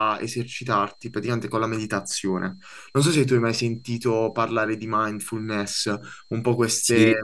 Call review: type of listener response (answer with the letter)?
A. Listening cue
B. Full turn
A